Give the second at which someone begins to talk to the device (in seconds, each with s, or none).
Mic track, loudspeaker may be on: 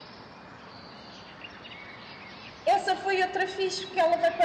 2.7 s